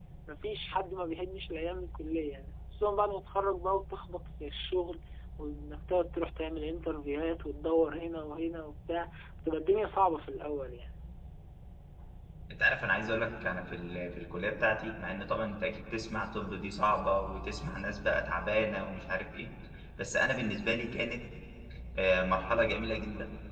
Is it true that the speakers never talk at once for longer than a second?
Yes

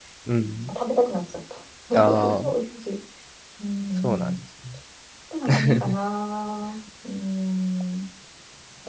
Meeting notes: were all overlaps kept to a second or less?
Yes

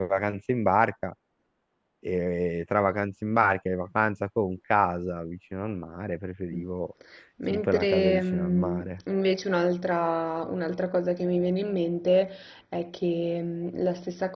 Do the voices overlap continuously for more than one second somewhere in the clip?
Yes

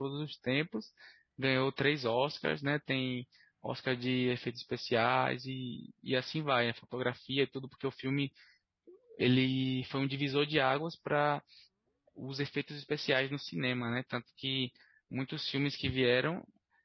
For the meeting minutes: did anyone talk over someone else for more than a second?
No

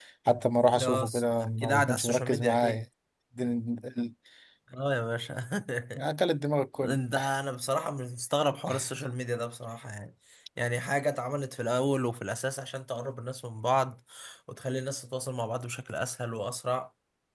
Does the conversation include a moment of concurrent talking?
Yes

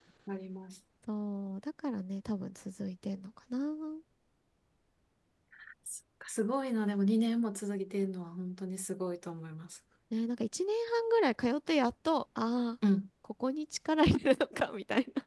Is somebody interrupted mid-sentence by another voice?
No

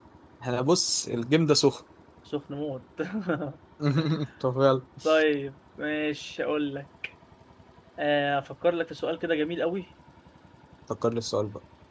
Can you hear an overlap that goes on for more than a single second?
No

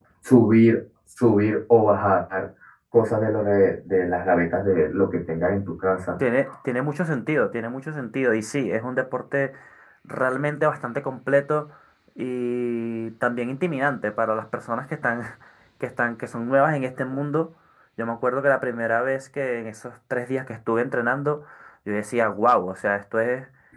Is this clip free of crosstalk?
Yes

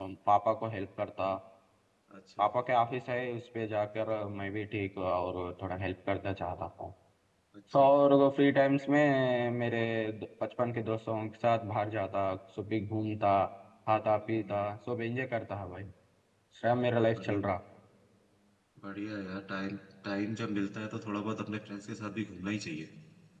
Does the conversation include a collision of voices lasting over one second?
No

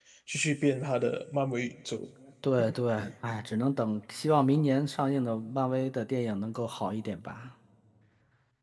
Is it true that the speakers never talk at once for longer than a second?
Yes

